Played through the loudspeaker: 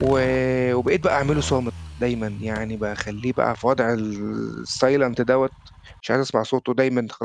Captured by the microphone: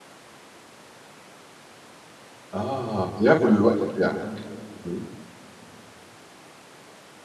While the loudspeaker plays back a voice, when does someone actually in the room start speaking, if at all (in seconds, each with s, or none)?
2.5 s